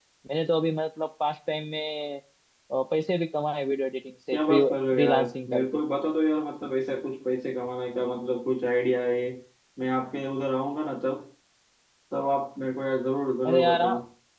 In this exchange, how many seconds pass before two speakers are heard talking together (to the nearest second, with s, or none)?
4 s